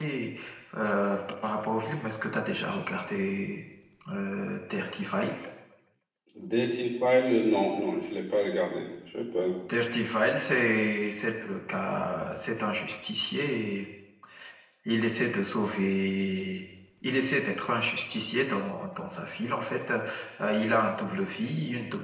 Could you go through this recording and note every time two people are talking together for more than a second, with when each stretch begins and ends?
none

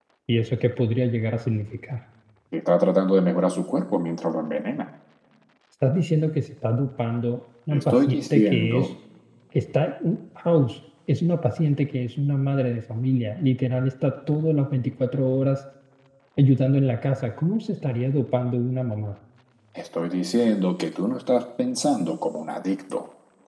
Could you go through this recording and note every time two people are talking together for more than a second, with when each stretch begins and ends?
7.7-8.9

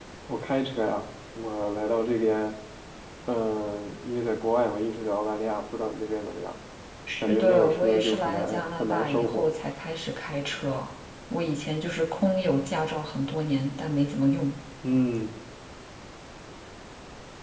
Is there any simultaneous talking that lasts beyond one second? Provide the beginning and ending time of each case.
7.2-9.5

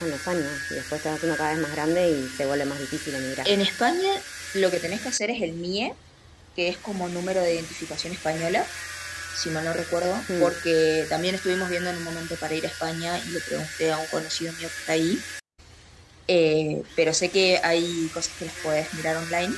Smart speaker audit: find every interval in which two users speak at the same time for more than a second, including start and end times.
none

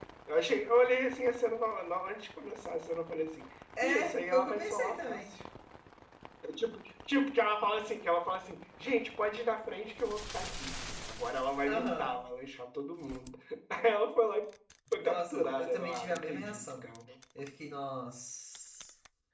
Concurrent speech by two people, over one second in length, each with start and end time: 3.8-5.2, 15.0-16.8

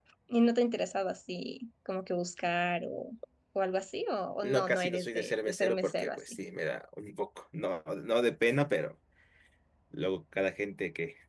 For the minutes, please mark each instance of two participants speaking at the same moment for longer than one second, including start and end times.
4.4-6.2

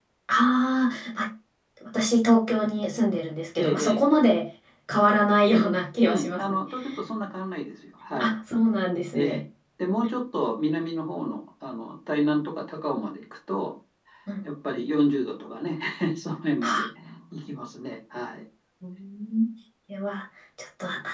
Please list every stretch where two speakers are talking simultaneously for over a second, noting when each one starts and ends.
none

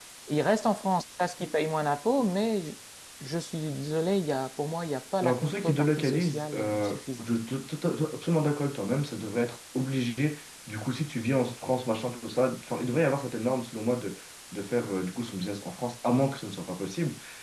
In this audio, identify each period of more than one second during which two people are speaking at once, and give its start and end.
5.2-7.3

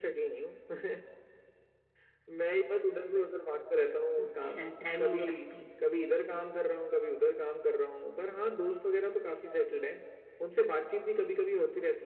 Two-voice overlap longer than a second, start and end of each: none

